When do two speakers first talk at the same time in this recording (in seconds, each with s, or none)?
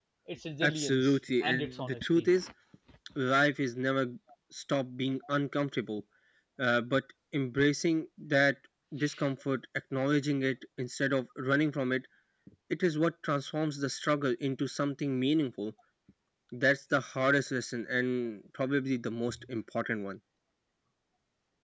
0.6 s